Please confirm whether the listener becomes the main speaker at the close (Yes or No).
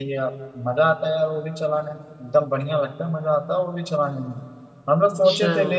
No